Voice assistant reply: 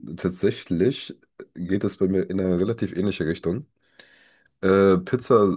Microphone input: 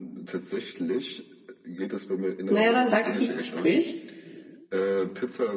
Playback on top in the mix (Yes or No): No